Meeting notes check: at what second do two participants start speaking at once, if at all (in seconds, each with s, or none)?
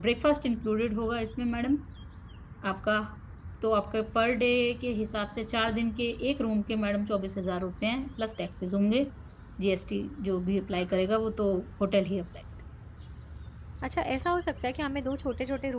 none